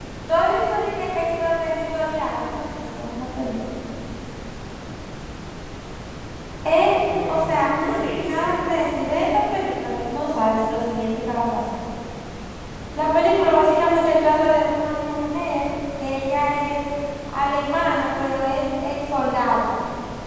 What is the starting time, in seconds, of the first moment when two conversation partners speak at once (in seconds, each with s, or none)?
7.3 s